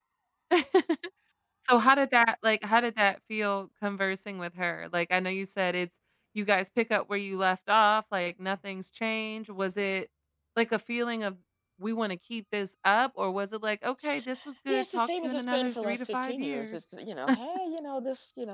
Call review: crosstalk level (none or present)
present